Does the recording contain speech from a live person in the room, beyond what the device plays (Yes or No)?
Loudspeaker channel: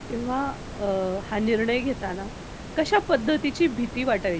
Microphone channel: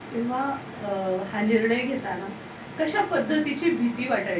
No